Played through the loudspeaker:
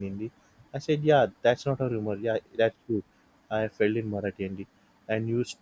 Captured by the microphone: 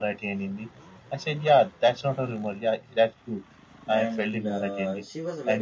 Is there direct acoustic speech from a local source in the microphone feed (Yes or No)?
Yes